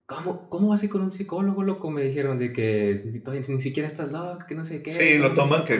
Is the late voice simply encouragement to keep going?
No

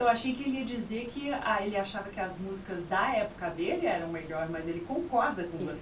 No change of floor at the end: No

